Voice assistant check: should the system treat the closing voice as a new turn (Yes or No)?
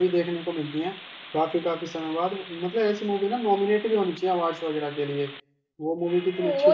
Yes